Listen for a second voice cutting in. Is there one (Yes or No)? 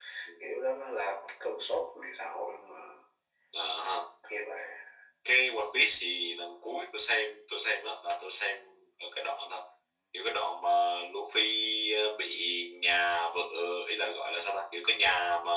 No